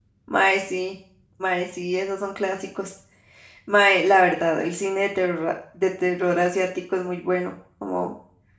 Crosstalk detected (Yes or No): No